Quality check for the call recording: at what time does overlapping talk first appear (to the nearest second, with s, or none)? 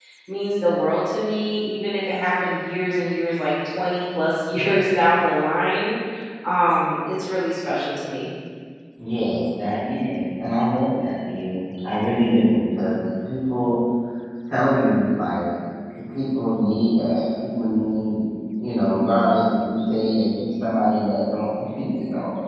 none